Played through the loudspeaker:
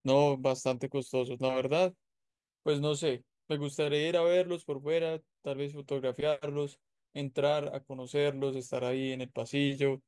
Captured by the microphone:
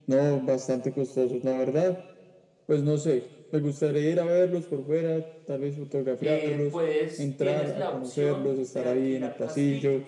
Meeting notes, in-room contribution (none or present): present